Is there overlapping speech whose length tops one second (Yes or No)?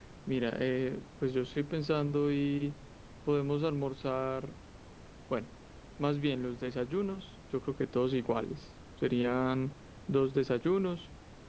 No